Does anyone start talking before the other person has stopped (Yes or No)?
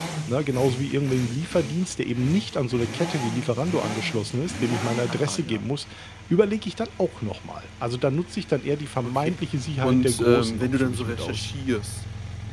Yes